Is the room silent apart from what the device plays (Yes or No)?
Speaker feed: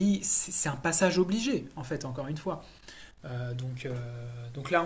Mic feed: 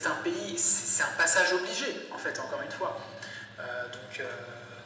Yes